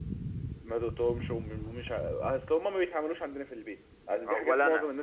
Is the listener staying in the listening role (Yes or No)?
No